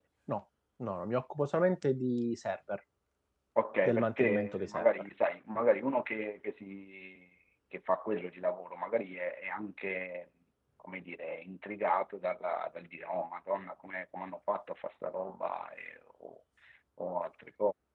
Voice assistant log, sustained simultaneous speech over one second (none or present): present